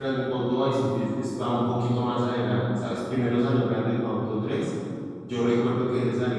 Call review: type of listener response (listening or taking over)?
listening